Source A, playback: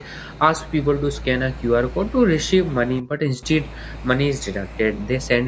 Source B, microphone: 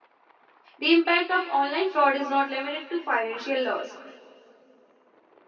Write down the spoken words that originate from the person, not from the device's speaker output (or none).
The impact of online fraud is not limited to financial loss.